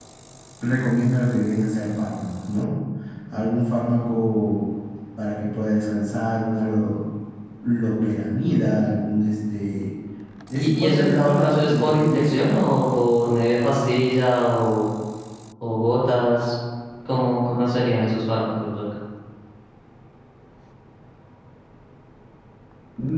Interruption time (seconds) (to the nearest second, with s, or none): 11 s